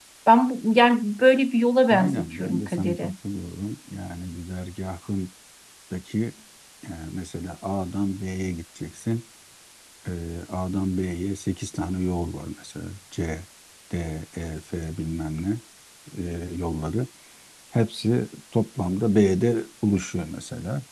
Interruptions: present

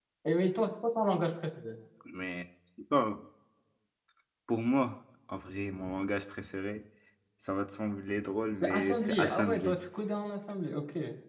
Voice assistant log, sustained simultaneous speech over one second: present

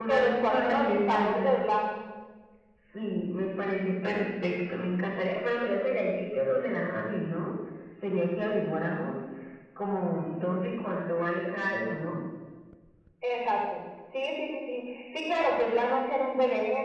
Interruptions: present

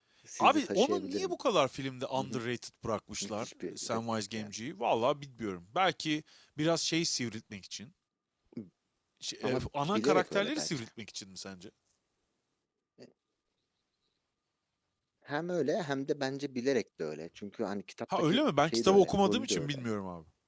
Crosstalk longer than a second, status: present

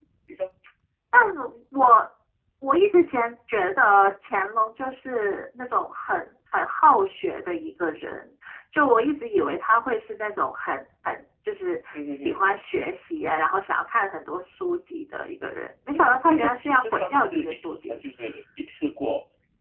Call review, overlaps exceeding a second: present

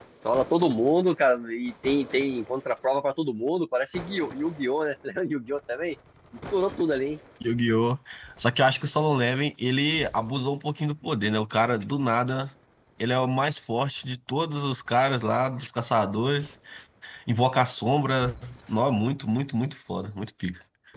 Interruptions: none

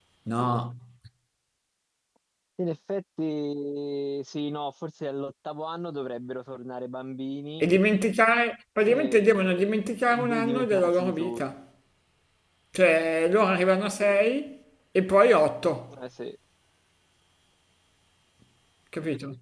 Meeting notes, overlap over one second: present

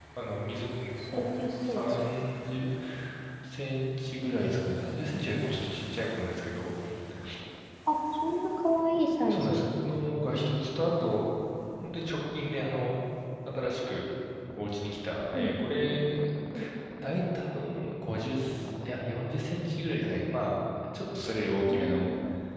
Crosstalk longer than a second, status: none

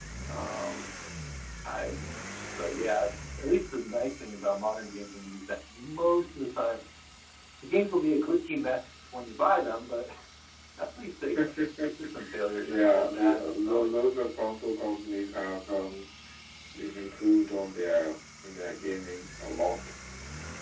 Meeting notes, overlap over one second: present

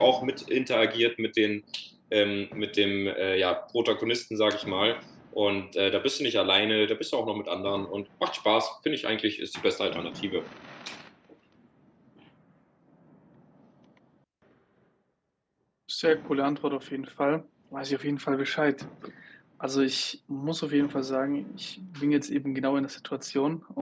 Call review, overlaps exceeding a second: none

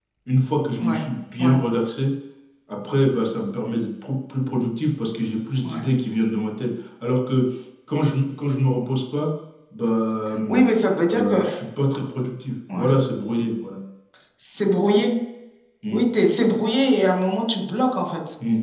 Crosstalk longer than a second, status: none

